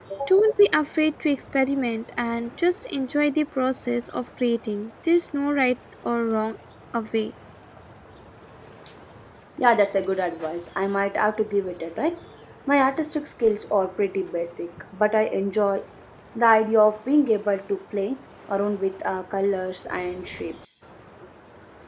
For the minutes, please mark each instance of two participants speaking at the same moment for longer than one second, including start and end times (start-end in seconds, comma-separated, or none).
none